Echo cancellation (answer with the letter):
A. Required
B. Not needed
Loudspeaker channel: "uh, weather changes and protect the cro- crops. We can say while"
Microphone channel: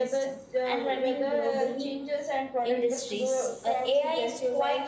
A